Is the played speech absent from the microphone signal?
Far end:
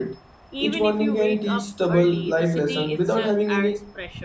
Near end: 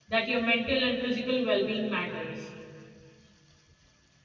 Yes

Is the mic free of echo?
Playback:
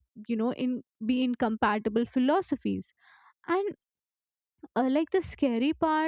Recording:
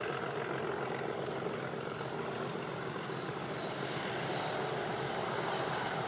Yes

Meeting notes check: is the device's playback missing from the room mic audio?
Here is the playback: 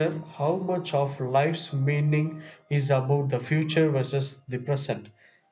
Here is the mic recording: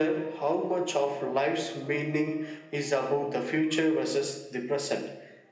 No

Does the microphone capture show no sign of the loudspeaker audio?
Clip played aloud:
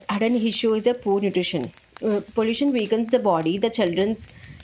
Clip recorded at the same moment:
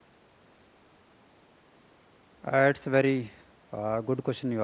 Yes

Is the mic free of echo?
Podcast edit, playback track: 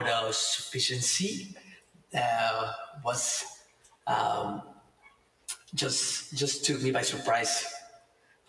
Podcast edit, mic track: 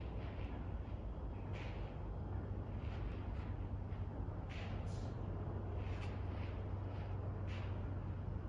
Yes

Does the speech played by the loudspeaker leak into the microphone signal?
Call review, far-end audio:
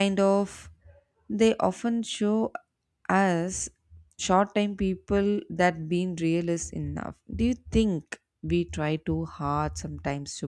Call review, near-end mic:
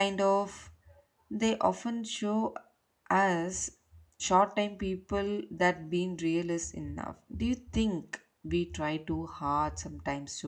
Yes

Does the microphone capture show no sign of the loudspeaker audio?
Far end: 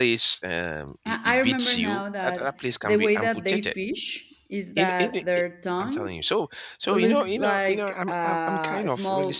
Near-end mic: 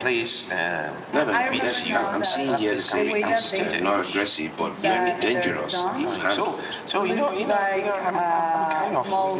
No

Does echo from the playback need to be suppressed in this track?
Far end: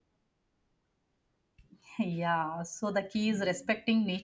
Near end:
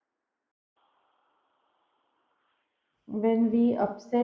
No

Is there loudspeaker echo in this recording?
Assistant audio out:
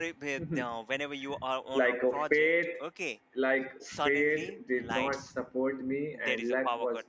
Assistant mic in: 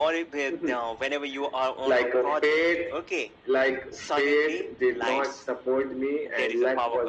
Yes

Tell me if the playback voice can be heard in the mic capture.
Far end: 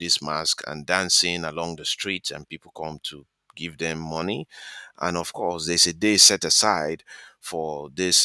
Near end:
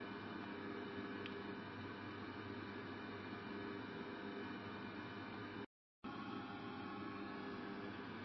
No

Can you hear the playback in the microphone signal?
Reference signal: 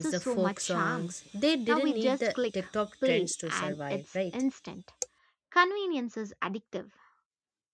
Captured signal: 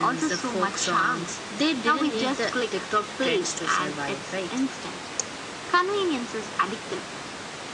Yes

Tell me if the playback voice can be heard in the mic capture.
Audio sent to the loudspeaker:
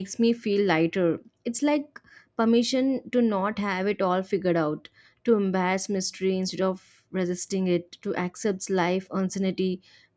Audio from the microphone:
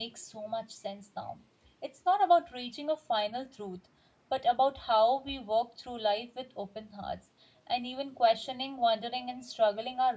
No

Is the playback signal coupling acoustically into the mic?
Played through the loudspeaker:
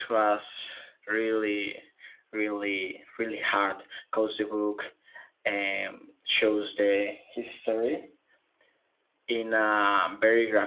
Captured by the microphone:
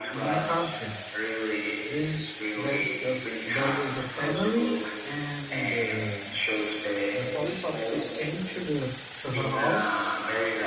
Yes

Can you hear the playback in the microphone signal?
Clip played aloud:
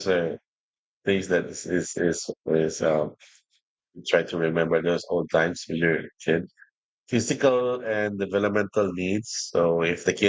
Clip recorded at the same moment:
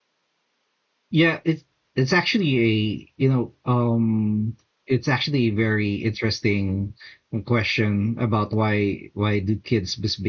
No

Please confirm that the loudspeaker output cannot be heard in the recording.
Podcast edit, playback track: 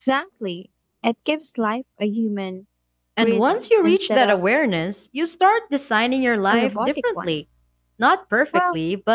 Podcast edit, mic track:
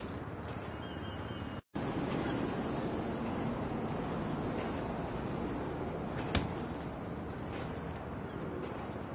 Yes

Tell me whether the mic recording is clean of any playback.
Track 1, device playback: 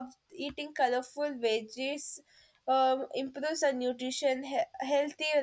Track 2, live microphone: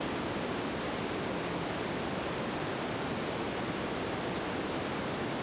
Yes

